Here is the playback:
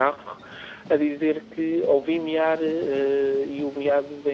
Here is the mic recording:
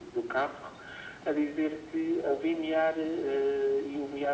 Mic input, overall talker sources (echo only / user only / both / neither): echo only